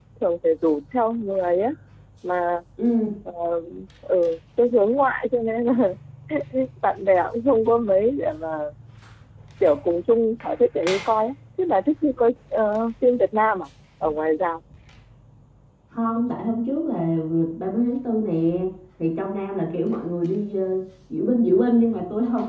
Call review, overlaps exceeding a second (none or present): none